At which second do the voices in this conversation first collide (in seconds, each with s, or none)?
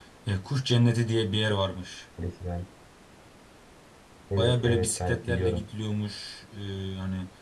4.4 s